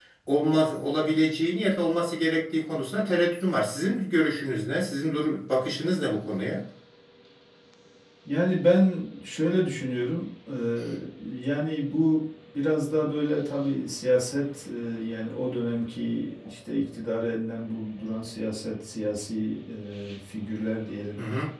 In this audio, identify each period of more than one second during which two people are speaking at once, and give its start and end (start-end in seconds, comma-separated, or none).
none